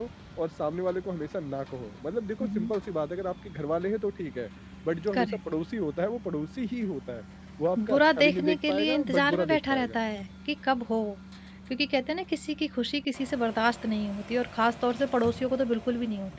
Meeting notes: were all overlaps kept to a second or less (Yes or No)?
No